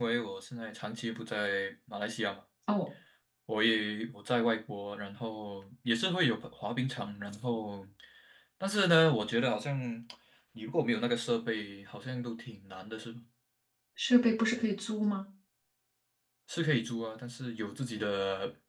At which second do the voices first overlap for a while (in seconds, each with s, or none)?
none